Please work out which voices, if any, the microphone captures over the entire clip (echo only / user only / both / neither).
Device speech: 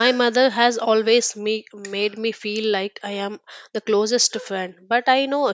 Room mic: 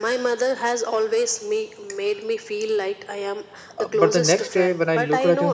both